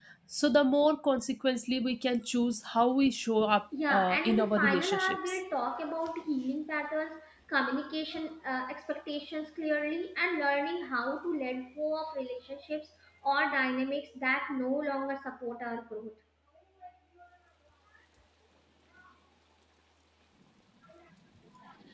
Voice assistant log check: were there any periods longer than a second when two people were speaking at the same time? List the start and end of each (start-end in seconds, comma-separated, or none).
3.9-5.4